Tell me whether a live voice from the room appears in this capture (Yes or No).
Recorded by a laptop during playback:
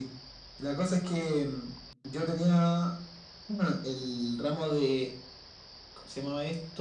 No